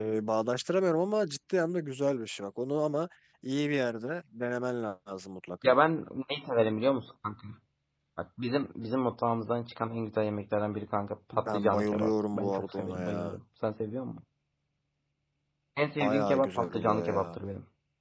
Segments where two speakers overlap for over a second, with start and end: 11.3-13.3, 16.0-17.4

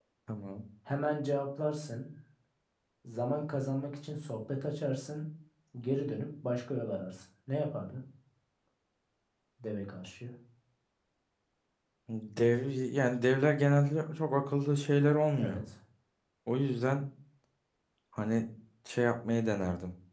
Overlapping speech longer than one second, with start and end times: none

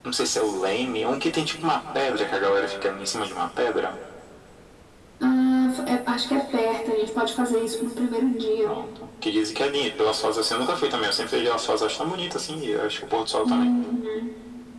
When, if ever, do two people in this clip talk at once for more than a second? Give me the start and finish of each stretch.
none

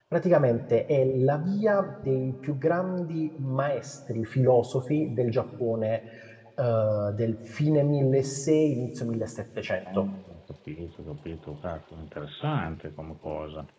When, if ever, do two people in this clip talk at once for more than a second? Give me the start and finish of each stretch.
none

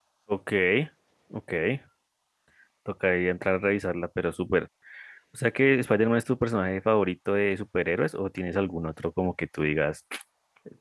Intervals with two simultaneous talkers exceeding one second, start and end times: none

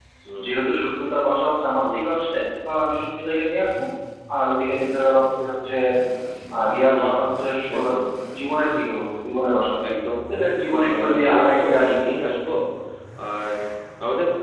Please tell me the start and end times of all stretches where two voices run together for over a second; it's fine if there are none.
10.7-12.0

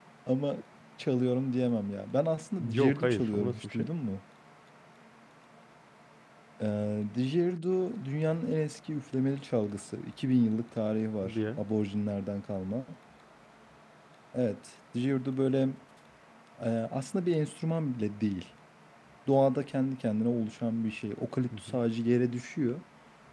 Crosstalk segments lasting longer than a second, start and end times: 2.6-3.9

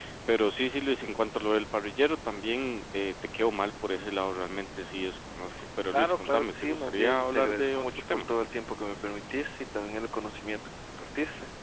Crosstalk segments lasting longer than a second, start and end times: 5.9-8.2

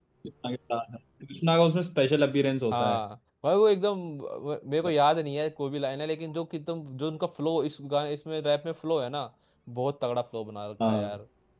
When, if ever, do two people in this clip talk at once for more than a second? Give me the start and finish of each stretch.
none

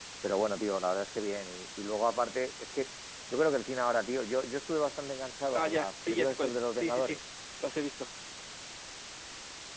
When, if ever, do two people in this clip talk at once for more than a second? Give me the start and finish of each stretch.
5.5-7.2

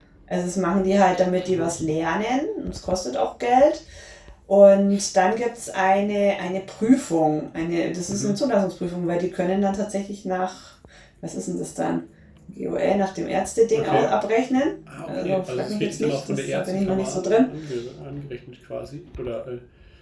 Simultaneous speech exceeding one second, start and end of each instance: 15.1-17.5

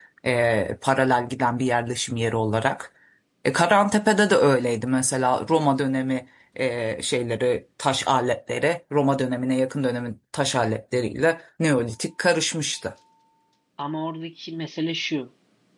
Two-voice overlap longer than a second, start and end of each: none

